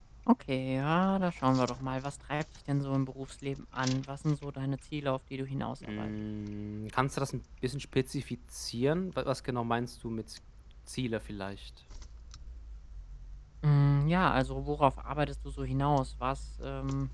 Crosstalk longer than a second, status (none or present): none